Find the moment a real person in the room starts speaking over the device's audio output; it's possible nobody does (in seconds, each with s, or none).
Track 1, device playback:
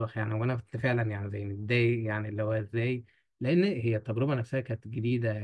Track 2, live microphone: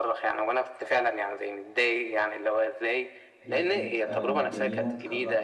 3.4 s